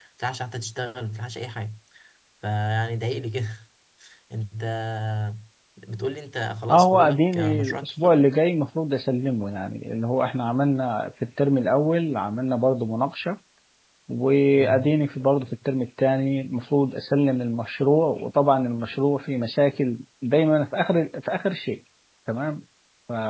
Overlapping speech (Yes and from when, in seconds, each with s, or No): Yes, from 6.7 s